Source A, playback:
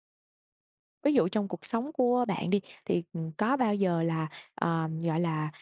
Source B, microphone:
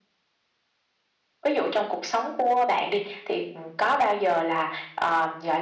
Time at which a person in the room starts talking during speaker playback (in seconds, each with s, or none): none